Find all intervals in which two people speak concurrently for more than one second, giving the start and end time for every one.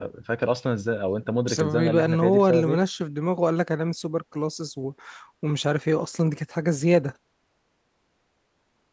1.5-2.8

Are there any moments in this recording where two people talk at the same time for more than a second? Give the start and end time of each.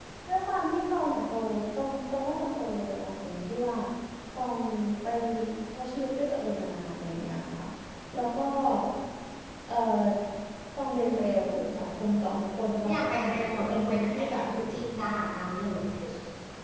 12.8-14.4

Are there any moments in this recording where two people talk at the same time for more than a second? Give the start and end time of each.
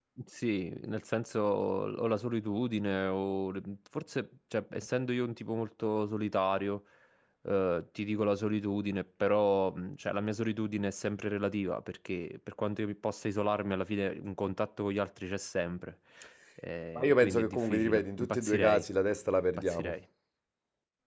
17.0-18.8

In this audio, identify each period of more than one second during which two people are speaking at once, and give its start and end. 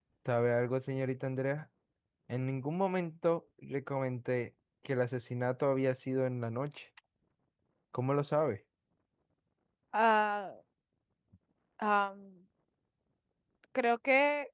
none

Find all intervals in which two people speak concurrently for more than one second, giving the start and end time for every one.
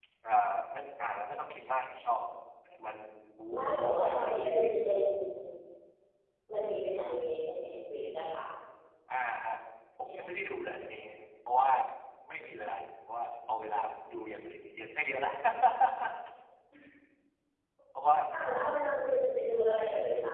3.5-4.8

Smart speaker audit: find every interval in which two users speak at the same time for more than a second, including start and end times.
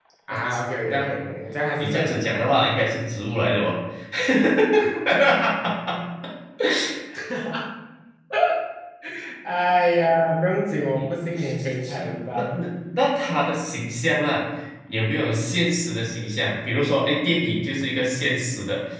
11.3-12.6

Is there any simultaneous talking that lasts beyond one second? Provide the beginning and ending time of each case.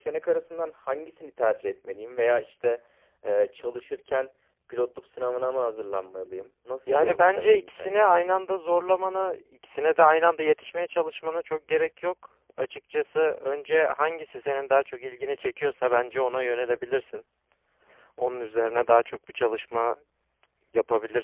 6.9-8.1

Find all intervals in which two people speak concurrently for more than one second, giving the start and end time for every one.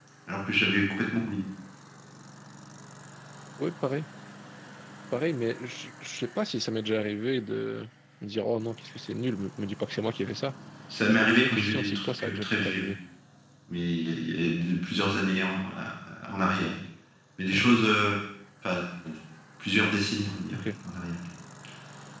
11.1-12.9

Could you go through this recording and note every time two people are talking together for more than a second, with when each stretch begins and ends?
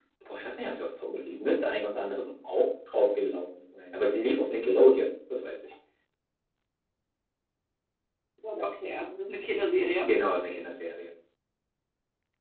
none

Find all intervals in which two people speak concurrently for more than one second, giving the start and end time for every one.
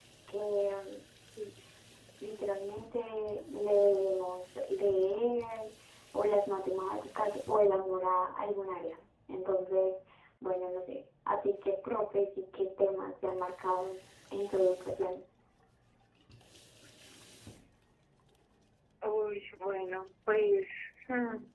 none

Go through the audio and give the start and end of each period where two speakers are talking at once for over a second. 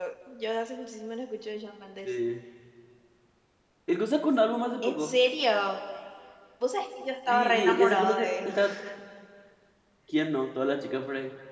7.3-8.5

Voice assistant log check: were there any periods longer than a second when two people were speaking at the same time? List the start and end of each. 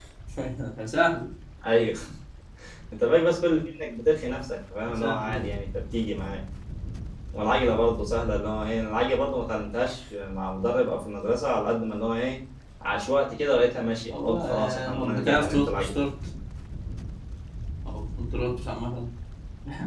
14.1-15.9

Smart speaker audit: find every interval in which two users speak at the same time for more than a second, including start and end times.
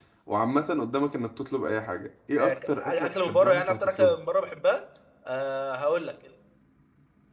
2.4-4.1

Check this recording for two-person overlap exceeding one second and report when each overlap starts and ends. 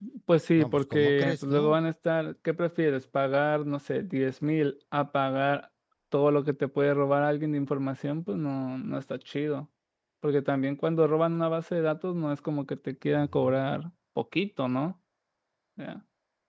0.6-1.8

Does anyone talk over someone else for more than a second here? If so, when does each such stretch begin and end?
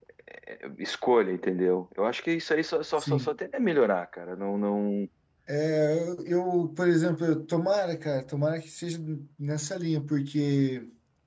none

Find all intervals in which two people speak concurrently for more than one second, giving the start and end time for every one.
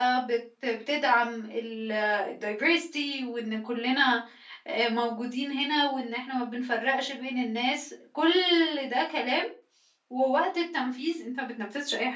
none

